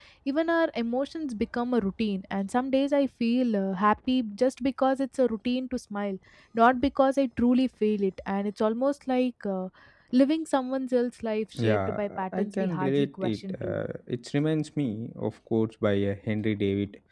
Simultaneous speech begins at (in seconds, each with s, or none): 11.6 s